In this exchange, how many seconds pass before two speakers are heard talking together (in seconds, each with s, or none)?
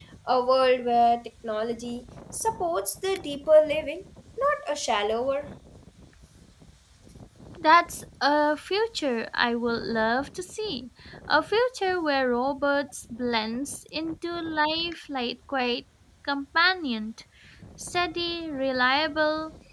none